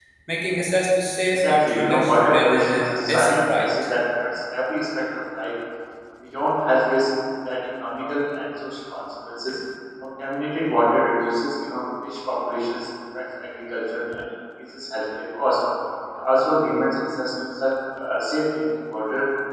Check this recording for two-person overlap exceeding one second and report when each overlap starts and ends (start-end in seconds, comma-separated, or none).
1.3-3.6